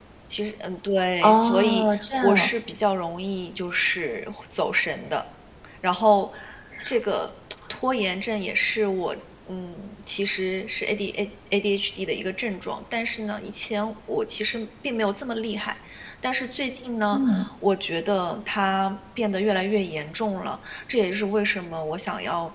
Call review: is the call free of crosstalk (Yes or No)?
No